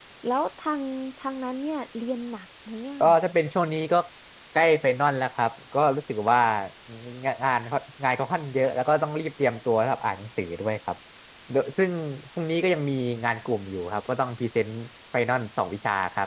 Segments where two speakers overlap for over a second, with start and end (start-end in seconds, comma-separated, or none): none